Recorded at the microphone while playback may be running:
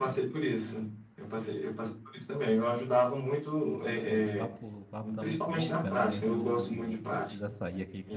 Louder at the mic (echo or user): echo